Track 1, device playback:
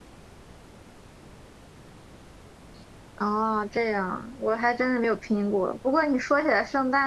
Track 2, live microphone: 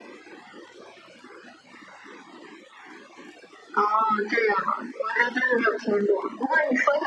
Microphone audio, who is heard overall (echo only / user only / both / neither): echo only